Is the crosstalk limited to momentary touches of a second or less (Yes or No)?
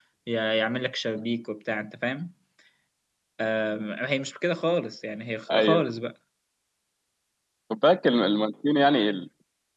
Yes